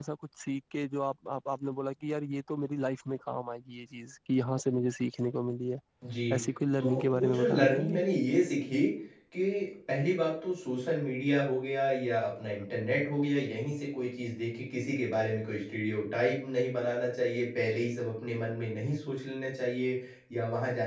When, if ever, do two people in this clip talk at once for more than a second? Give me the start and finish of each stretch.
6.8-8.0

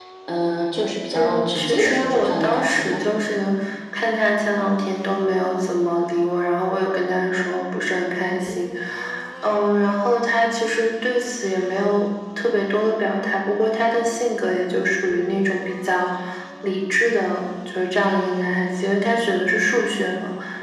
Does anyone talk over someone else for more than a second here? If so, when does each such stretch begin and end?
1.1-3.0

